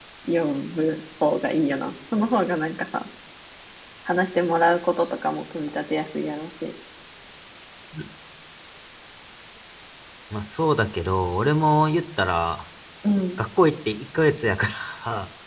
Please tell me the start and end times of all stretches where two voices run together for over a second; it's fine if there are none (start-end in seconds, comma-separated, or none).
none